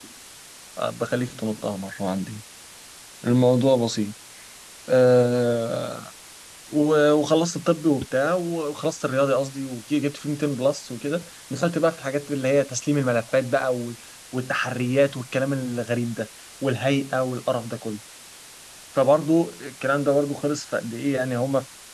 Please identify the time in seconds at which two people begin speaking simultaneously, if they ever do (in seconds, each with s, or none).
none